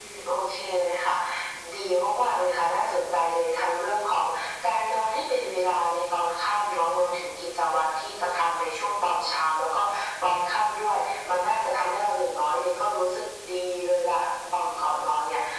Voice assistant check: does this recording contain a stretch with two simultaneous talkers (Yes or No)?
No